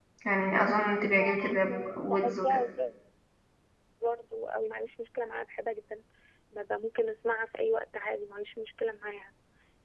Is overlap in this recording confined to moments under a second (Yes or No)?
No